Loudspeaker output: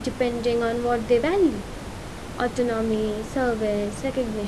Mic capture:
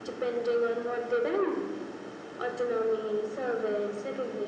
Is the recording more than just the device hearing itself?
No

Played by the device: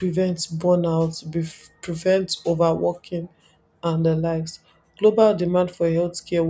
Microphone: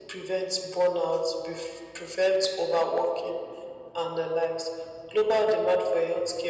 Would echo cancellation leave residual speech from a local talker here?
No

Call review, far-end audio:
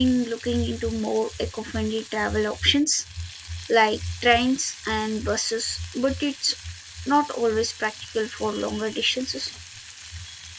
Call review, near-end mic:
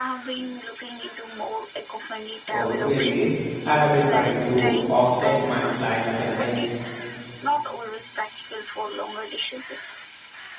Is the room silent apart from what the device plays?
No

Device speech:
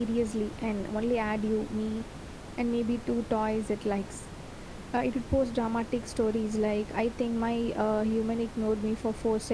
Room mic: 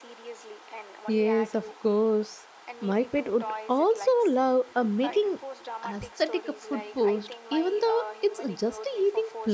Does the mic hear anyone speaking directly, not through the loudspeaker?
Yes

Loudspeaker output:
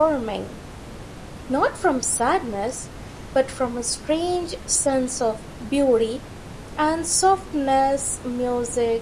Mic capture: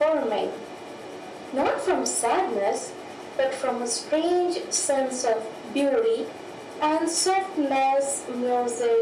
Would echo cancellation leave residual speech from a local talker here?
No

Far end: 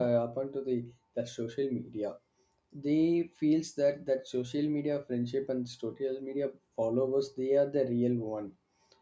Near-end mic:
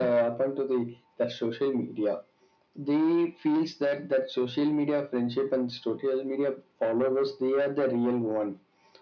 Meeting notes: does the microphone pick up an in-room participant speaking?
No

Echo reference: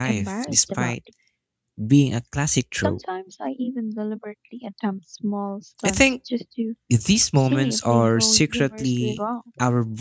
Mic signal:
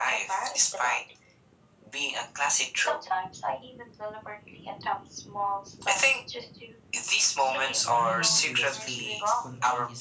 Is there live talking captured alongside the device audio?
Yes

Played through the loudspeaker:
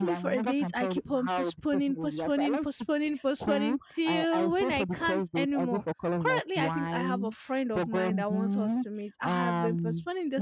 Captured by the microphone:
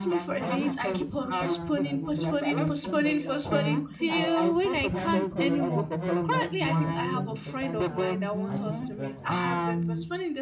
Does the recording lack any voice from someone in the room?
No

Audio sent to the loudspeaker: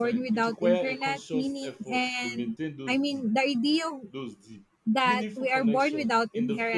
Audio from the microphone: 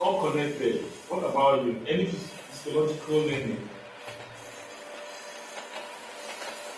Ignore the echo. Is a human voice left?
Yes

